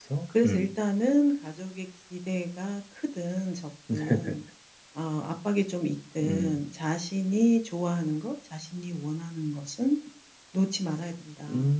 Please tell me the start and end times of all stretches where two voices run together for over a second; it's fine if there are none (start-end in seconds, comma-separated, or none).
none